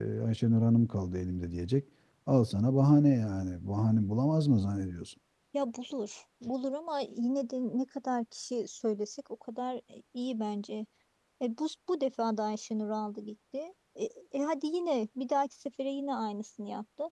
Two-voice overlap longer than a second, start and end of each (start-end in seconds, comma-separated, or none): none